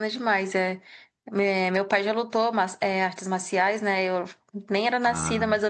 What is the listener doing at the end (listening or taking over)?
listening